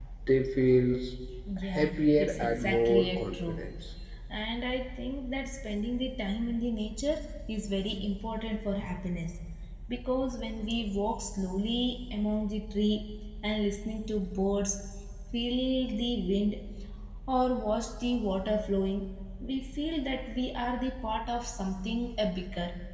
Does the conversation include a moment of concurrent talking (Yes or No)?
Yes